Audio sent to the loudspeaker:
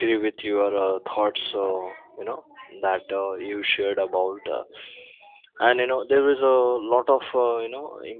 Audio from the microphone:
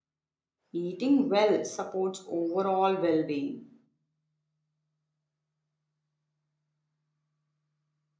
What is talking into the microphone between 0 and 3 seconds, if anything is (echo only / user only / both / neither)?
user only